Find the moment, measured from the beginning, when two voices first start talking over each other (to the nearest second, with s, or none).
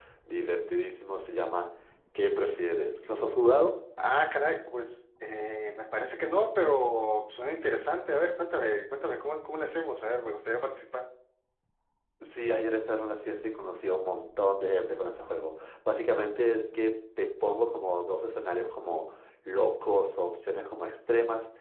none